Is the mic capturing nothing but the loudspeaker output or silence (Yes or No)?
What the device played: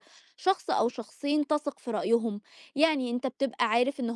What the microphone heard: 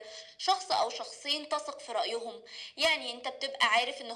Yes